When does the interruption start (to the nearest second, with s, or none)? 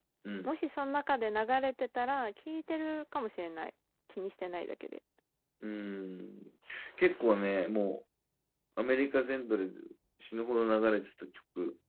none